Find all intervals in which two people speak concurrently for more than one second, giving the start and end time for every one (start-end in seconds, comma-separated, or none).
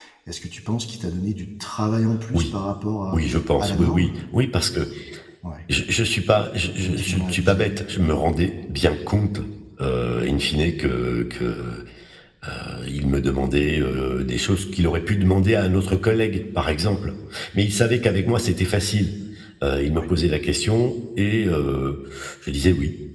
6.8-8.1